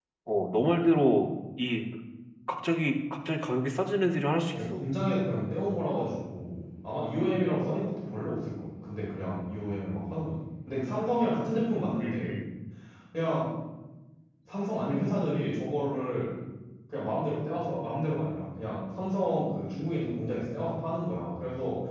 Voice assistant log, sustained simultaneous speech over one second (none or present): none